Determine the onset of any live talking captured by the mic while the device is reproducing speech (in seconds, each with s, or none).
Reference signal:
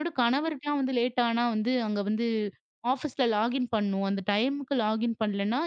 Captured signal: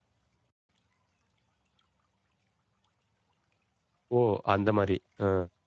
4.2 s